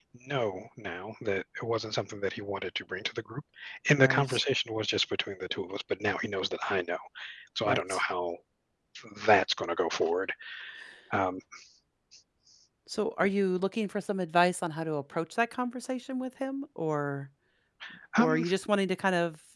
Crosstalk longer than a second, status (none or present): none